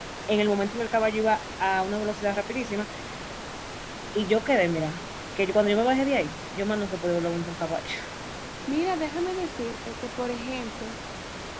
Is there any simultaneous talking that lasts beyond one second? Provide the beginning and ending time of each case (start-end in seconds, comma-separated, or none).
none